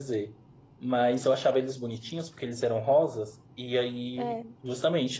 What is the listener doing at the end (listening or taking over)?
listening